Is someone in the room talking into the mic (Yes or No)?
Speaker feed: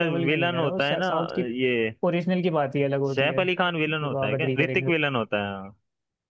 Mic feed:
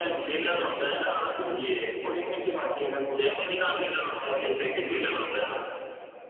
No